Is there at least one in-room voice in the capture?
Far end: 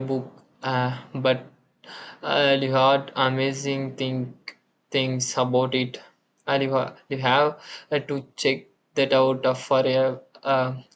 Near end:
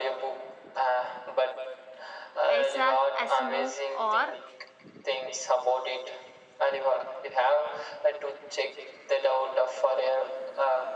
Yes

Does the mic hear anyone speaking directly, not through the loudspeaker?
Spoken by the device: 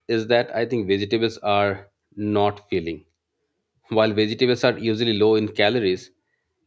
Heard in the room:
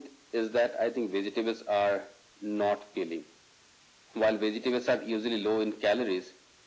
No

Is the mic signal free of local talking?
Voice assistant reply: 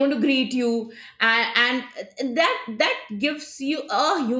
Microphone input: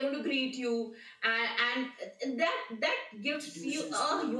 No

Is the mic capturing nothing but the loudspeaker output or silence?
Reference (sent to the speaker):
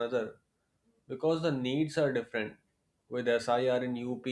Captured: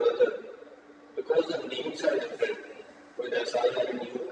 Yes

